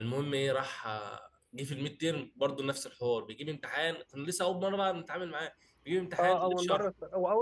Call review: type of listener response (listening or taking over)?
taking over